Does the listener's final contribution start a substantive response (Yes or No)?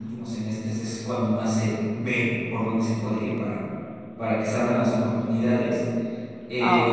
No